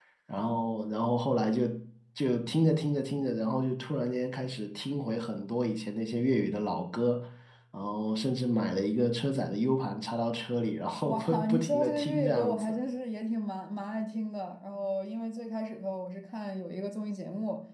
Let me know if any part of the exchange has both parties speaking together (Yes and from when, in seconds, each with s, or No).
Yes, from 11.0 s